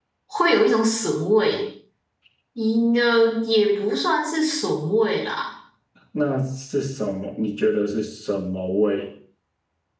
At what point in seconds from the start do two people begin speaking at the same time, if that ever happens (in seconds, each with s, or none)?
none